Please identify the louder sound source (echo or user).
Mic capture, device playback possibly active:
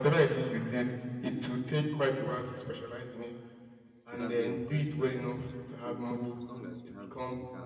echo